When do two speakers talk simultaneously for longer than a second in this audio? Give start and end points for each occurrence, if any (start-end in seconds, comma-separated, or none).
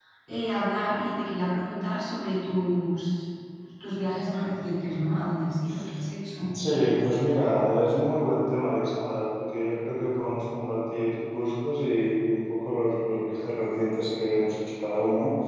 none